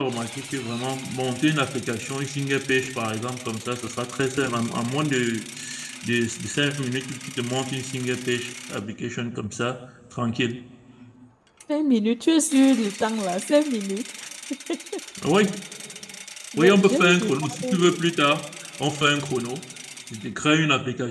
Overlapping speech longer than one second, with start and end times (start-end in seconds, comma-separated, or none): 16.6-17.8